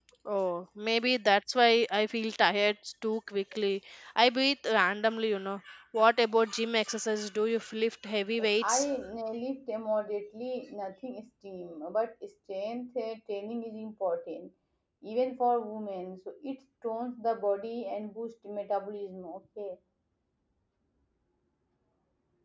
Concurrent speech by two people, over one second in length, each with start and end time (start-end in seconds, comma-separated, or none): none